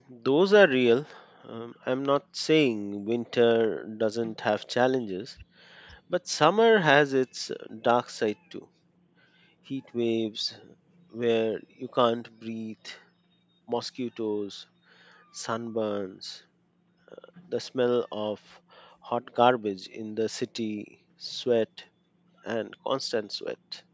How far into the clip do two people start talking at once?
none

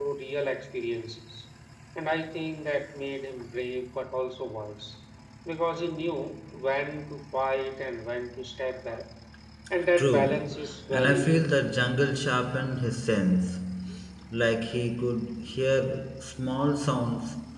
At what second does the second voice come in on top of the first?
10 s

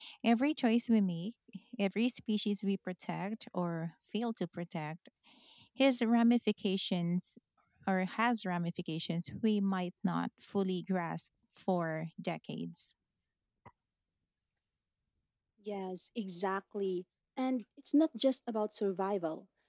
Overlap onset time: none

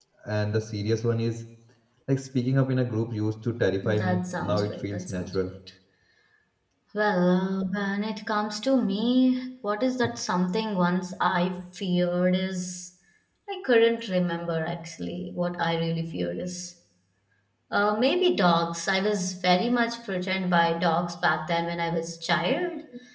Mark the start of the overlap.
4 s

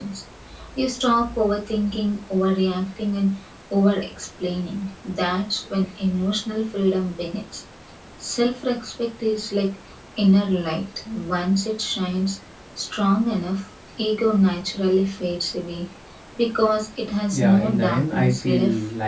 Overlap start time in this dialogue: 17 s

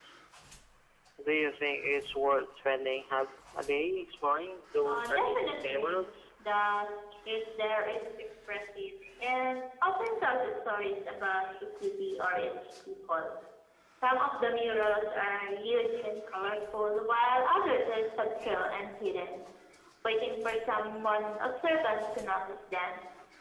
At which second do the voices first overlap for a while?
5 s

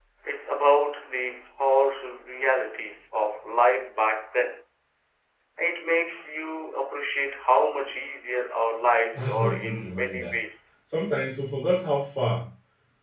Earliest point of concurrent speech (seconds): 9 s

